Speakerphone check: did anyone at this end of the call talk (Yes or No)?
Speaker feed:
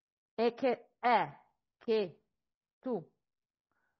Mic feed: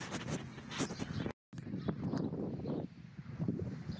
No